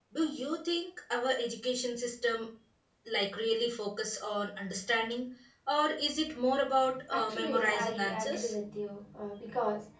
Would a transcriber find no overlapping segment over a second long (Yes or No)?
No